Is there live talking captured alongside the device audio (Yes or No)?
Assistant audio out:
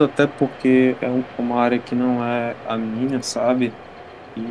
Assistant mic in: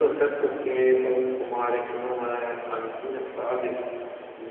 No